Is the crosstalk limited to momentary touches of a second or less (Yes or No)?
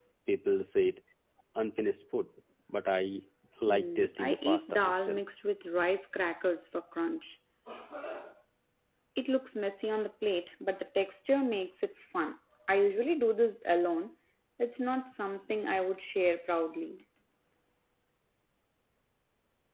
No